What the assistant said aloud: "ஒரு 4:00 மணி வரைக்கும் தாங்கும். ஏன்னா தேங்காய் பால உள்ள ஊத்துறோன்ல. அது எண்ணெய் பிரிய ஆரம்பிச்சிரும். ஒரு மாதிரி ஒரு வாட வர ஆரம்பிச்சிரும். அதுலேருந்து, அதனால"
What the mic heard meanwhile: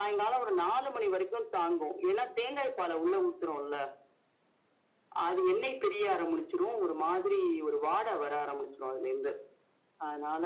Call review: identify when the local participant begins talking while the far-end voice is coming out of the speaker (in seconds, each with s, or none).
none